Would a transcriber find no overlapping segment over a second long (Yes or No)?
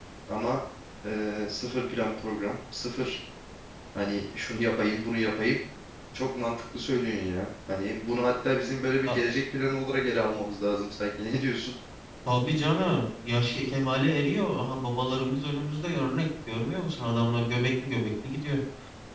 Yes